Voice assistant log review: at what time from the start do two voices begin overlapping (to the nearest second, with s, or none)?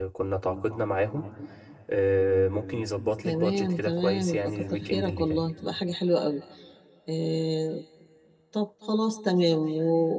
3 s